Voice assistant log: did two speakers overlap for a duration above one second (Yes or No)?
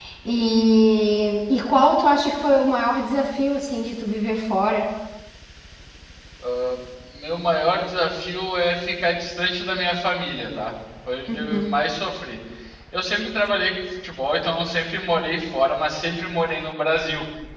No